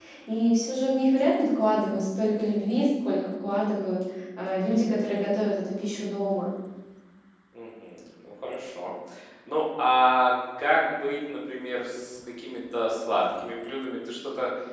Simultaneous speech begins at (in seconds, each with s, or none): none